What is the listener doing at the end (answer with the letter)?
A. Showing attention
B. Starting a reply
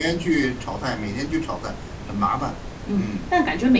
B